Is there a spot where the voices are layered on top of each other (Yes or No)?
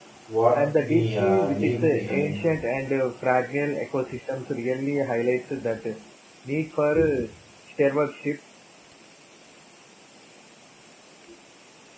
Yes